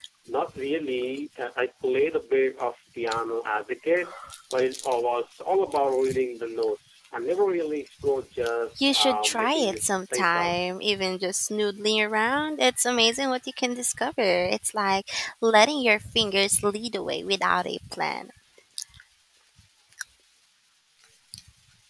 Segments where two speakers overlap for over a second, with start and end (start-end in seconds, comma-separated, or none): 8.8-10.5